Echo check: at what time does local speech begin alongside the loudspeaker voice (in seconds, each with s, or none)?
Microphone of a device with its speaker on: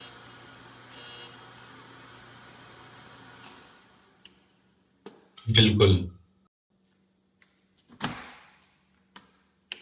5.6 s